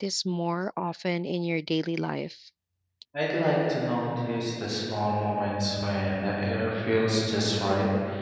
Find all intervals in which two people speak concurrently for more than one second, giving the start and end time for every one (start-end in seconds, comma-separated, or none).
none